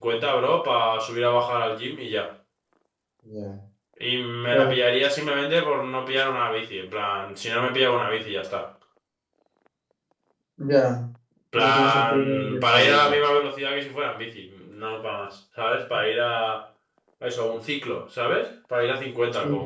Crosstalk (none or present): present